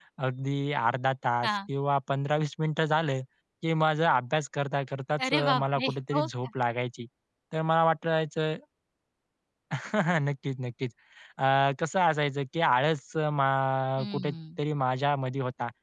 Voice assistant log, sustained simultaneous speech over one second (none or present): present